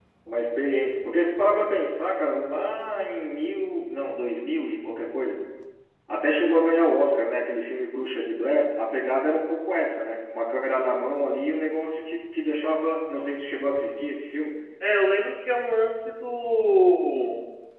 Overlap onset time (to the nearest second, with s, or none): none